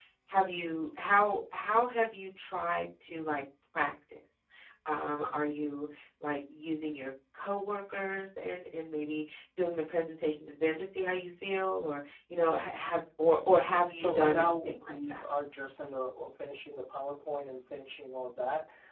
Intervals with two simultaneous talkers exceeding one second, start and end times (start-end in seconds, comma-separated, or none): 13.9-15.2